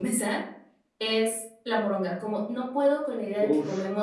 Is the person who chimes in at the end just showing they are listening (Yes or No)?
Yes